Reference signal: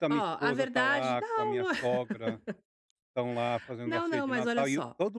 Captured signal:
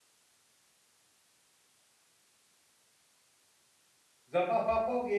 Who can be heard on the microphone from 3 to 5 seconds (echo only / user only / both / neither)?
user only